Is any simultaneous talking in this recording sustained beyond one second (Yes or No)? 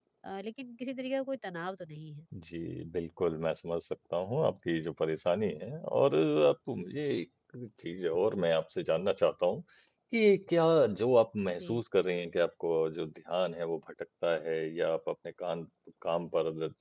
No